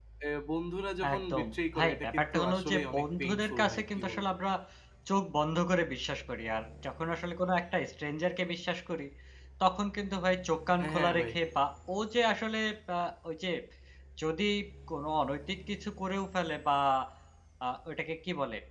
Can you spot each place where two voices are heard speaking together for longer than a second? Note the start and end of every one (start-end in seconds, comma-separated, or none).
1.1-4.2